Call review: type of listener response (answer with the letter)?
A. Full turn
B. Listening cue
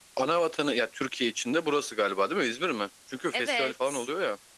A